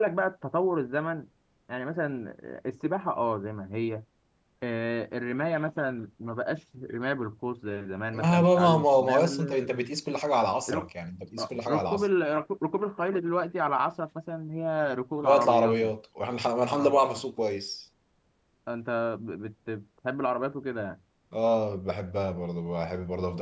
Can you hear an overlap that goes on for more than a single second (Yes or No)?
Yes